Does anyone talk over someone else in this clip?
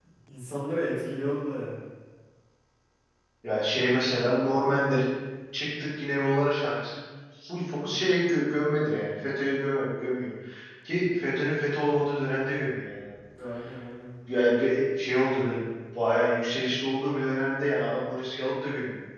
No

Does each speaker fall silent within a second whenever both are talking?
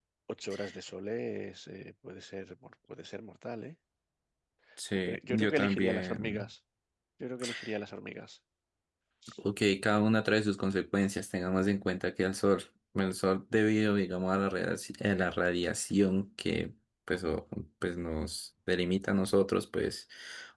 No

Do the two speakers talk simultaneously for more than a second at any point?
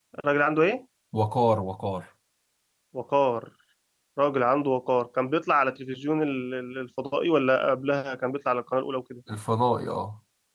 No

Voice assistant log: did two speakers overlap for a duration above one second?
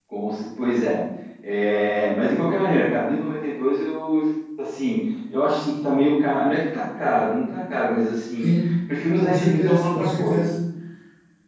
Yes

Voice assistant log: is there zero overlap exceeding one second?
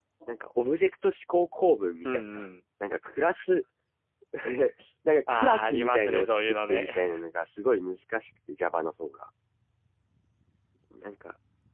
No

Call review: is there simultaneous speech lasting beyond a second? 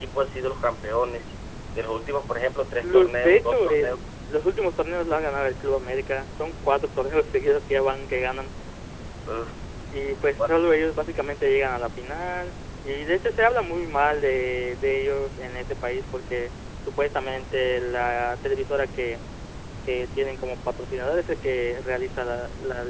Yes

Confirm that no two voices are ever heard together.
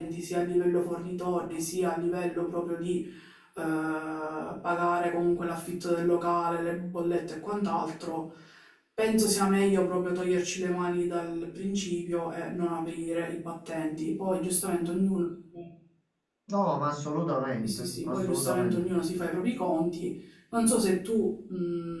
No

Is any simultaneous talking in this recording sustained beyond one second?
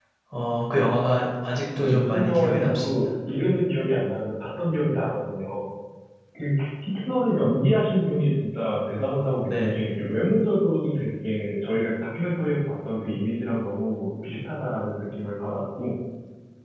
Yes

